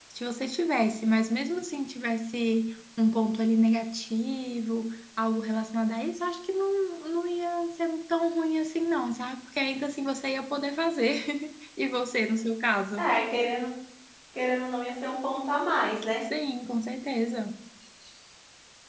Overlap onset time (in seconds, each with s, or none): none